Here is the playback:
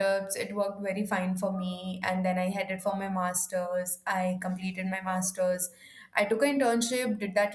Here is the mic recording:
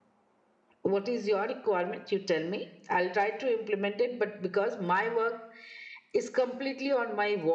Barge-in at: 0.8 s

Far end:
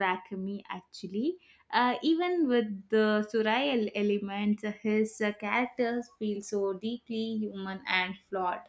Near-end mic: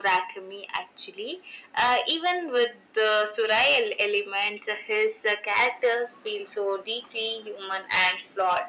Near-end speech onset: none

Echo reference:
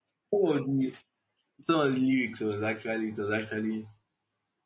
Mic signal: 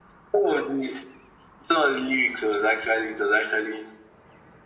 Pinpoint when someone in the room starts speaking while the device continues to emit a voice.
none

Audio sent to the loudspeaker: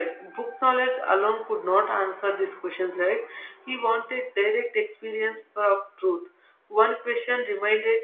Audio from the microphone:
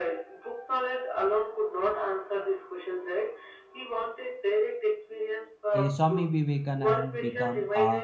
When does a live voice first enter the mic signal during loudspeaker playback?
5.8 s

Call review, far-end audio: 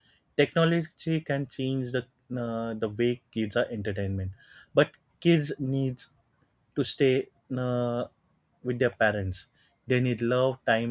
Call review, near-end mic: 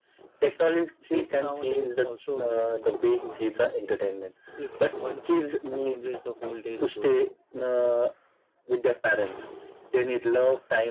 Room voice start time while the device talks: 1.1 s

